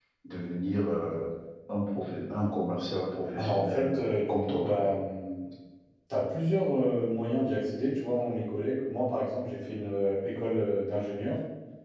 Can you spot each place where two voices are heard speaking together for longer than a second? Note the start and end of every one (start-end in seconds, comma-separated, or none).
3.4-5.0